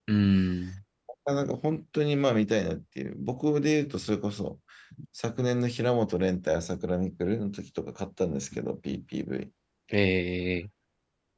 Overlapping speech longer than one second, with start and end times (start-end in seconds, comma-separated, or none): none